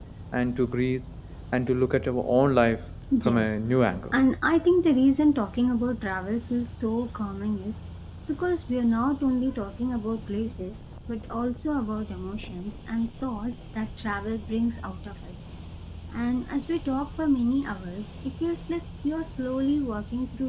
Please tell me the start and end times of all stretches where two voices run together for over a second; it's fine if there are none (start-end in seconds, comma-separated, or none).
none